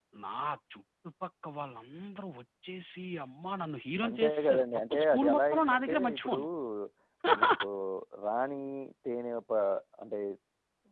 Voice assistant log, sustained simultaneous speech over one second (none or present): present